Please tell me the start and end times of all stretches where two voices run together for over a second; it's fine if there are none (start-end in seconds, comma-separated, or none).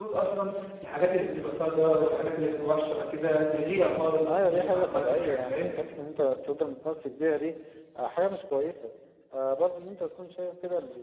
4.2-5.6